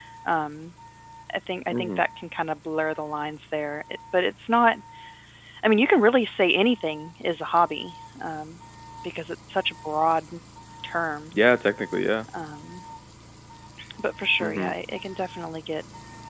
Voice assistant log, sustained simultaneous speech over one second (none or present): none